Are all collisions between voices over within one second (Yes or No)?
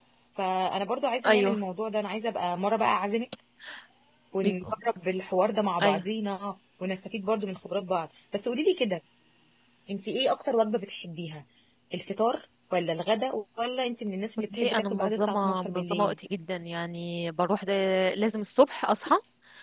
No